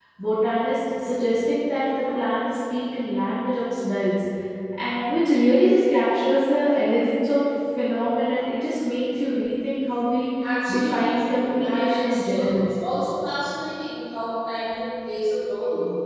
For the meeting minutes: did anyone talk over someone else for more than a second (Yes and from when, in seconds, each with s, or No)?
Yes, from 10.8 s